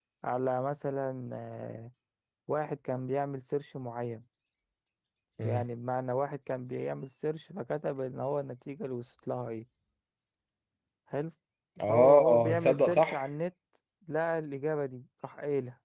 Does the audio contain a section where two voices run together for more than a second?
Yes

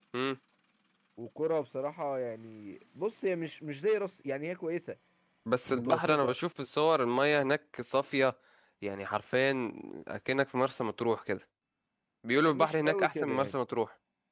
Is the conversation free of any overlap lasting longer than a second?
No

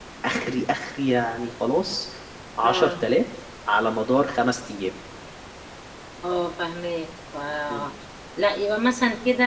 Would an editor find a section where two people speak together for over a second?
No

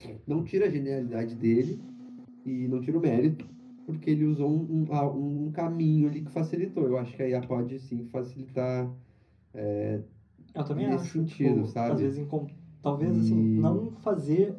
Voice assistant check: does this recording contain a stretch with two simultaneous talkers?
Yes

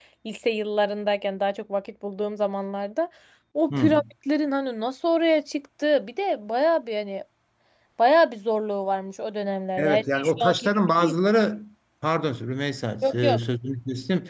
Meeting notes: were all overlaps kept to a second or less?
No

